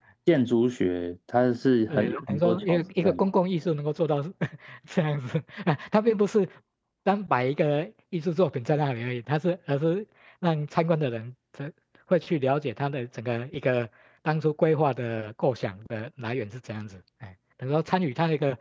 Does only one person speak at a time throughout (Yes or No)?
No